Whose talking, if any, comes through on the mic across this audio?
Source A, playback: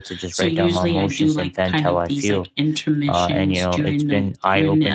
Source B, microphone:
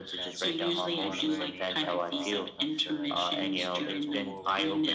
both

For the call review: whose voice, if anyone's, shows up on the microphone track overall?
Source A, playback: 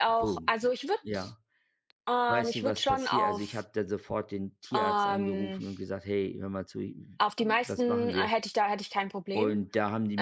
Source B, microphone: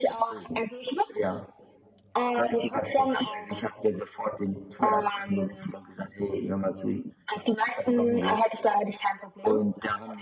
echo only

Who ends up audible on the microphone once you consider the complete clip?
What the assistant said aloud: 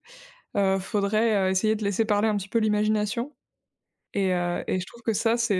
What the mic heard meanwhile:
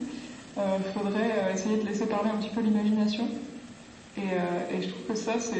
echo only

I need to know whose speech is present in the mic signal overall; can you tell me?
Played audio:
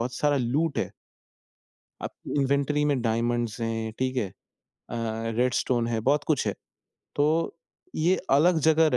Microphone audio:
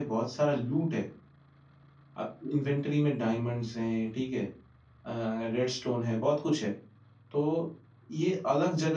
echo only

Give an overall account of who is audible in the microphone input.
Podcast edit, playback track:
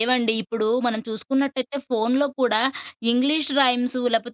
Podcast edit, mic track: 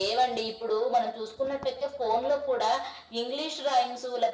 echo only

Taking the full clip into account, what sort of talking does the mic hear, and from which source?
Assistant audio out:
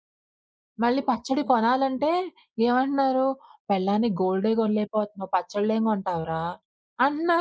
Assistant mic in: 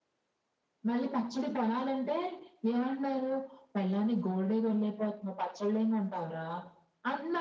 echo only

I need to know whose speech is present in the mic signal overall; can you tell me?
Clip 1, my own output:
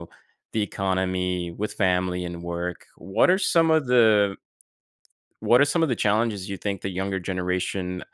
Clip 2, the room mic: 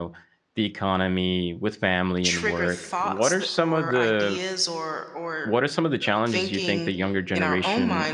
both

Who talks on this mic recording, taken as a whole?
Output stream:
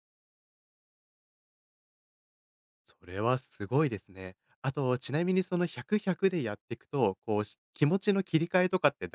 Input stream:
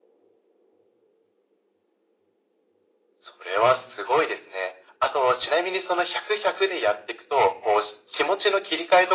echo only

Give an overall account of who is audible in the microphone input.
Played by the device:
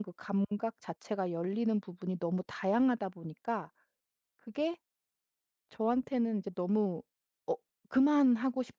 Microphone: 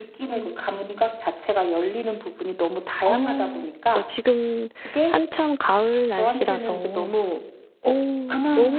both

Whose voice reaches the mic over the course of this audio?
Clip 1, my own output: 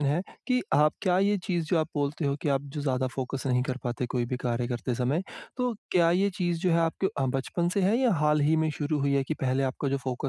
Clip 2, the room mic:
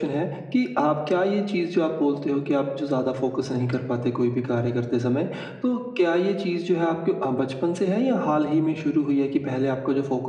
echo only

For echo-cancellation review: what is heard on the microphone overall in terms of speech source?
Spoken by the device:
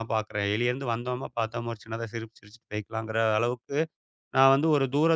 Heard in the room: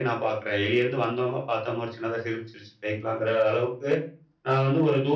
echo only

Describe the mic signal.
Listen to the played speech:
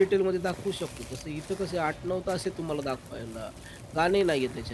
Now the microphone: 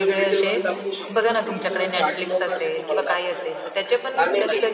both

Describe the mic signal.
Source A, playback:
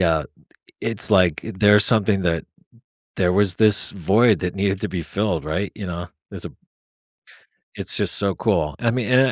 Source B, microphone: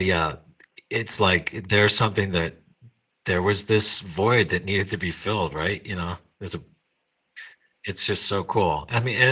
echo only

